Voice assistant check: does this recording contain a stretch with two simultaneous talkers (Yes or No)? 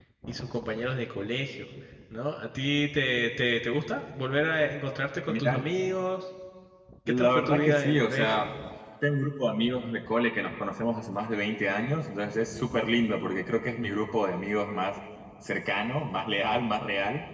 Yes